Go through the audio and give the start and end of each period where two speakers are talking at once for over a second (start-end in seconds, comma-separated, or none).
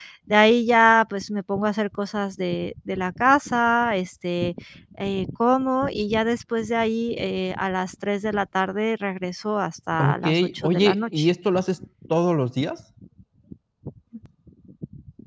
10.0-11.3